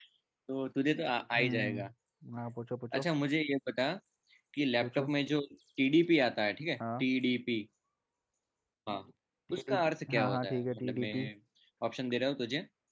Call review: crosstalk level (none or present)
present